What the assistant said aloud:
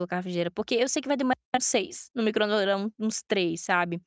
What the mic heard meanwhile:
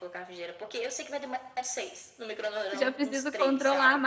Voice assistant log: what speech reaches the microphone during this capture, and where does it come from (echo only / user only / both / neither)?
both